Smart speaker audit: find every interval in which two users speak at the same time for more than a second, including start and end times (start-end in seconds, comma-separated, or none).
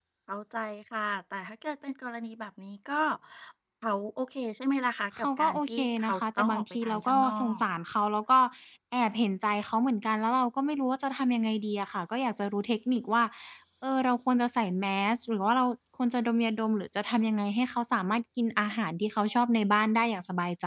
5.2-7.6